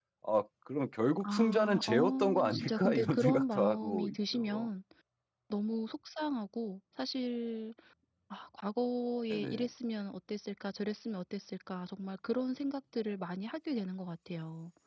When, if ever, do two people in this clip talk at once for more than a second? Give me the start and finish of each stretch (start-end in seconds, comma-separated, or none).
1.2-4.7